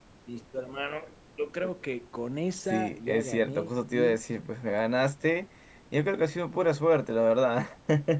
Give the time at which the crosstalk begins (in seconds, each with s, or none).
2.6 s